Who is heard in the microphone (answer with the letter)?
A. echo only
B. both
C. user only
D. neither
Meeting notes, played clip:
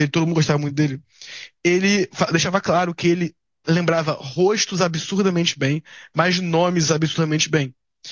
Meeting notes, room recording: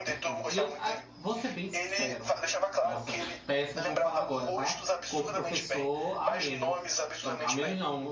B